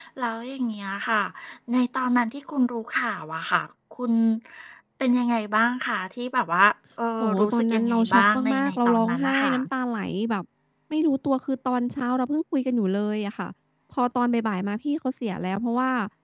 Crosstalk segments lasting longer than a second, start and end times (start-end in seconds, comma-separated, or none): 7.2-9.5